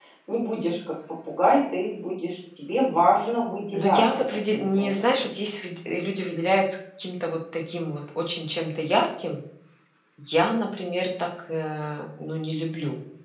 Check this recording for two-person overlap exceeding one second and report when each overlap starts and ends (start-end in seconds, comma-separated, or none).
3.7-5.3